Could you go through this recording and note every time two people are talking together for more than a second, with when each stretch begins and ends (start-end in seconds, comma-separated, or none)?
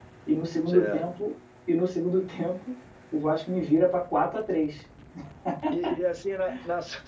none